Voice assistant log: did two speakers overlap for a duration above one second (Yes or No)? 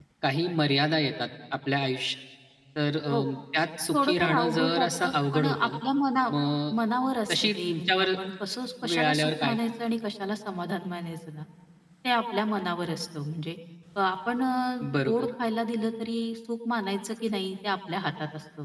Yes